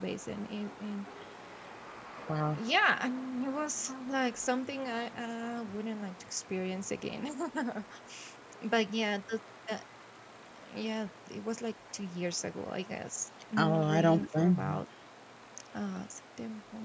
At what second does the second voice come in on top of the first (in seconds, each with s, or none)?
13.6 s